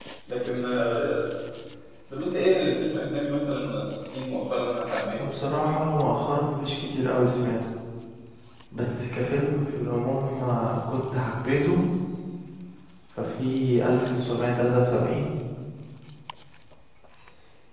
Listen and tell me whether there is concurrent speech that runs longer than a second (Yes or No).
No